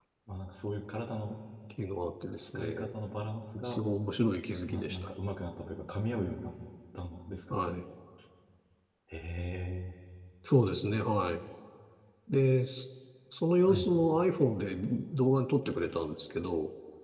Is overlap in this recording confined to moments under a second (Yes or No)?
Yes